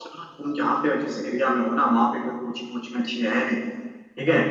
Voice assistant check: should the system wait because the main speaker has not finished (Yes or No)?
Yes